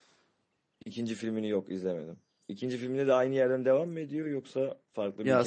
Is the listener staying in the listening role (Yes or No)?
No